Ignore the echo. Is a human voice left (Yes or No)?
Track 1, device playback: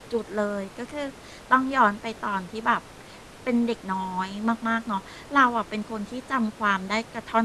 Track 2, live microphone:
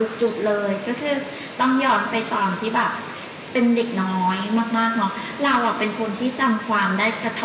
No